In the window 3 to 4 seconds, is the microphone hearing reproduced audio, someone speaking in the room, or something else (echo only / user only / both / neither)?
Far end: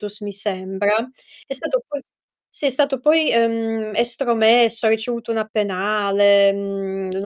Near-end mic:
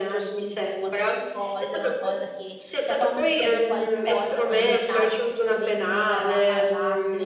both